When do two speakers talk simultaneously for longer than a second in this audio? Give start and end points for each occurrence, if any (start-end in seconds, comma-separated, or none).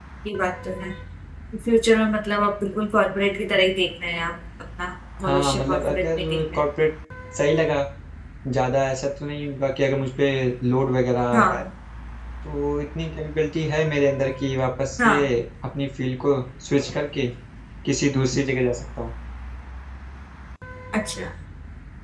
5.2-6.6